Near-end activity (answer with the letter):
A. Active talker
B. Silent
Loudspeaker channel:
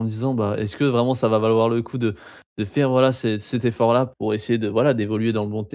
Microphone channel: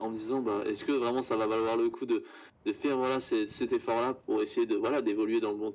B